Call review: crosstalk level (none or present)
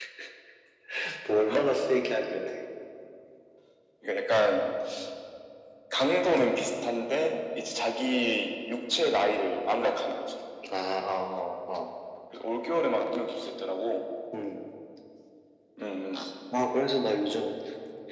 none